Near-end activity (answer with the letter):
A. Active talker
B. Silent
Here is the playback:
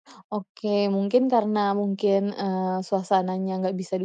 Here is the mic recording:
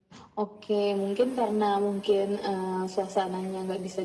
B